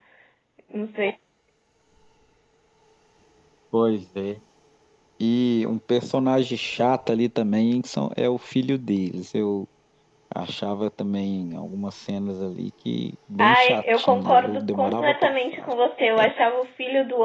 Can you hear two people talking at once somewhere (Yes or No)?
Yes